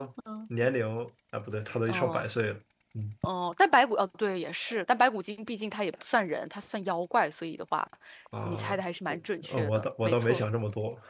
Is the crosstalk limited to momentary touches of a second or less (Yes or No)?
No